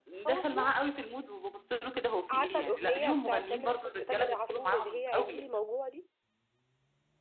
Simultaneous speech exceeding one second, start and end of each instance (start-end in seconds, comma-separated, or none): 2.3-5.5